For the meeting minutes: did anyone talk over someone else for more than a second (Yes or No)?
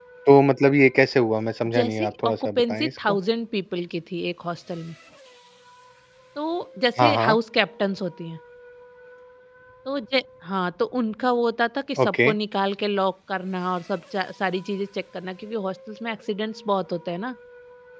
Yes